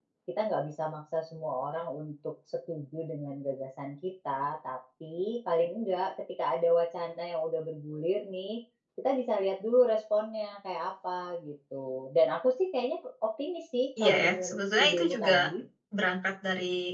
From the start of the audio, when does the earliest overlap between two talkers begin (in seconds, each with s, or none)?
14.0 s